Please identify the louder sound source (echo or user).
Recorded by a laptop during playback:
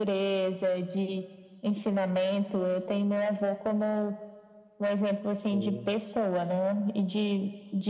echo